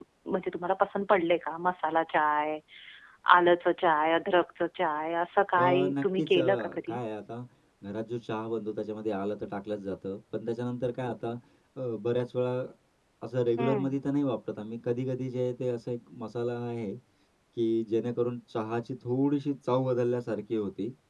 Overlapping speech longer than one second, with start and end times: 5.6-7.0

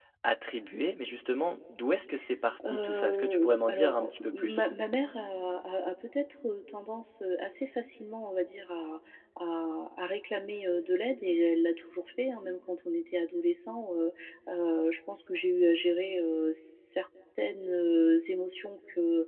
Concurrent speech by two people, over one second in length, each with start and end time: 2.6-4.7

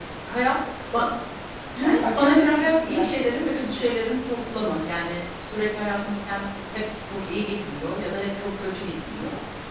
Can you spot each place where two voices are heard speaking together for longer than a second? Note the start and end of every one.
1.8-3.2

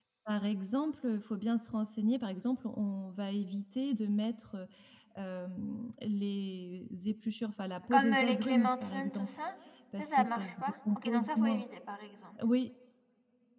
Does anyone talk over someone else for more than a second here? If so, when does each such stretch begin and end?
7.9-9.3, 10.0-11.6

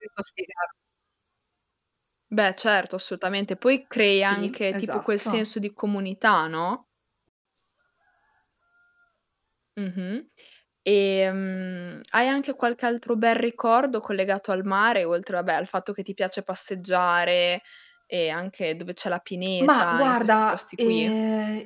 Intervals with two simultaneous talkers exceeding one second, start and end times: 4.2-5.4, 19.6-21.1

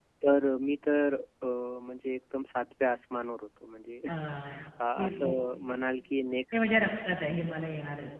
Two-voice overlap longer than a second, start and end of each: none

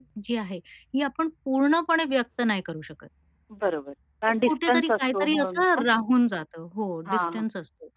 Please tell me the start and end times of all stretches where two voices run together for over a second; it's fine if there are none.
4.3-5.8

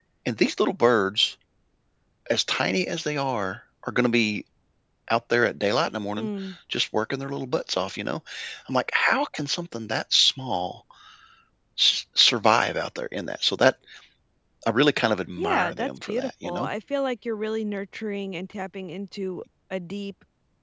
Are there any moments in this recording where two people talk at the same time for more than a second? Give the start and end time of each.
15.4-16.7

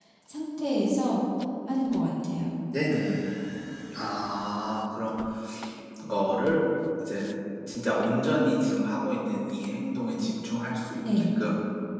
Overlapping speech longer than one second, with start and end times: none

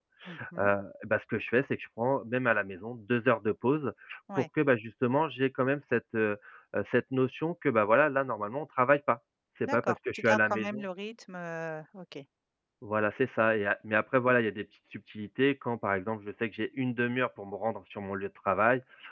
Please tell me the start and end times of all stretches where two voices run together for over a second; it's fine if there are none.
9.6-10.8

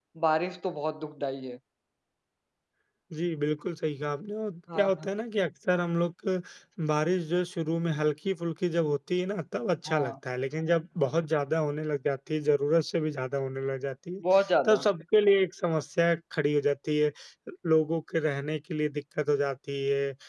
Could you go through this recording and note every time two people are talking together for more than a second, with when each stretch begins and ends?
none

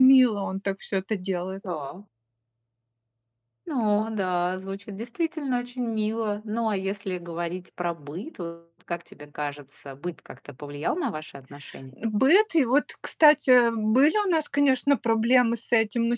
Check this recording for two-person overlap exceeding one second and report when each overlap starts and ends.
none

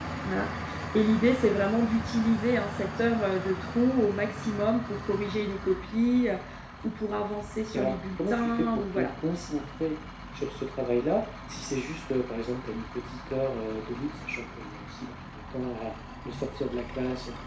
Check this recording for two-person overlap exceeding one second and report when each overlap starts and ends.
7.7-9.1

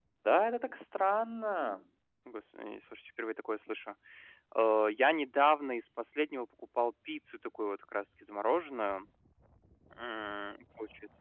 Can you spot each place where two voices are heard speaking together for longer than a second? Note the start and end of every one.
none

